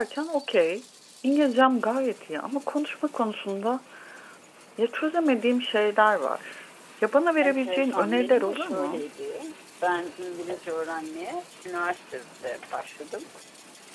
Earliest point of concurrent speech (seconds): 7 s

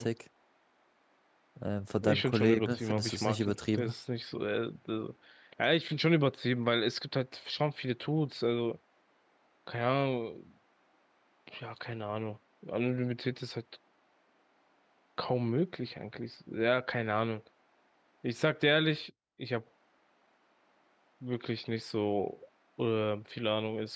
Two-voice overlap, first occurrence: 2 s

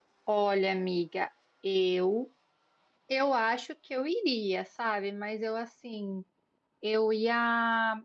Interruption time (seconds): none

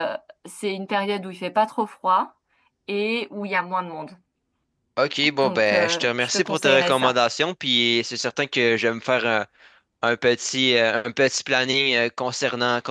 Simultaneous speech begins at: 5 s

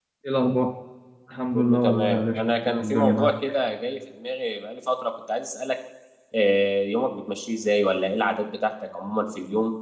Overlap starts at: 2 s

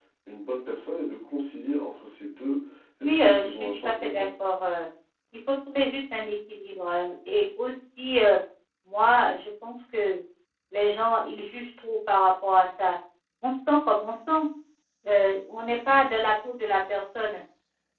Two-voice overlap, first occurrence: 3 s

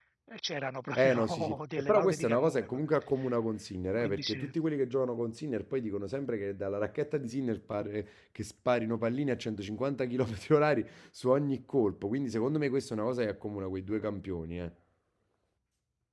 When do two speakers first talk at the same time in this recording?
1 s

